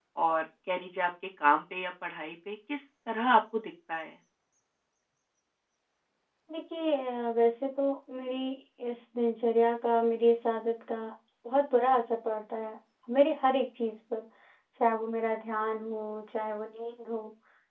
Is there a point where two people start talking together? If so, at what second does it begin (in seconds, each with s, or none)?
none